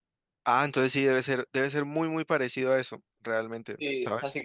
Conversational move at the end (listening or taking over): taking over